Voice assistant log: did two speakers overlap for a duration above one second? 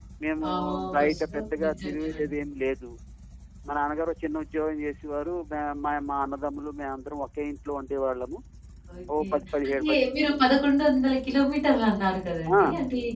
Yes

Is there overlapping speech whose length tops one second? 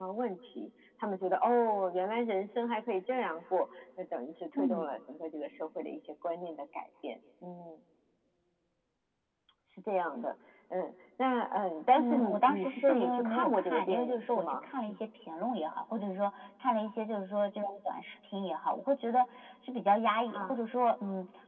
Yes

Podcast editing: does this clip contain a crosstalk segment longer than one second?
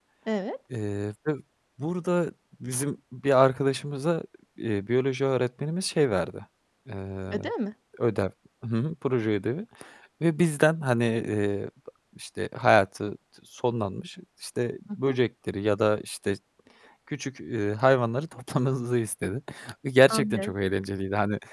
No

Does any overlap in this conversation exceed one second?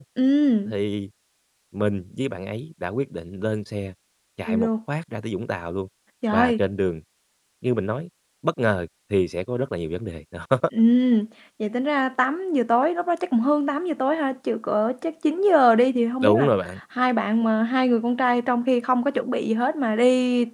No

